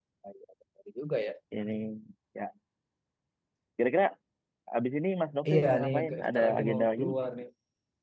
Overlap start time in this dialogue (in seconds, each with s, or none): 5.5 s